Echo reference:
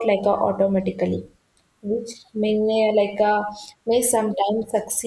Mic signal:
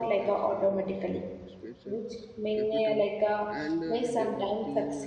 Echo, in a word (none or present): present